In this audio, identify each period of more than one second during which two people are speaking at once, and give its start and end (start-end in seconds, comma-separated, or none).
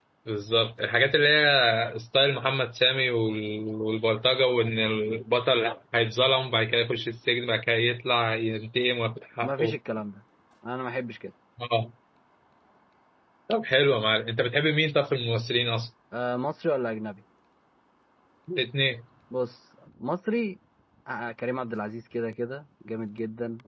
none